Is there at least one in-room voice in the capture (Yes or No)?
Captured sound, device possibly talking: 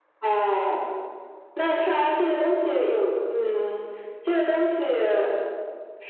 No